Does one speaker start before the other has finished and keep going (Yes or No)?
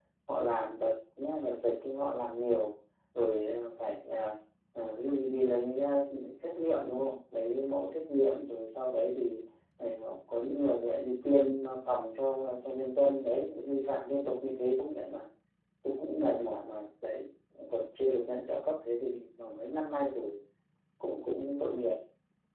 No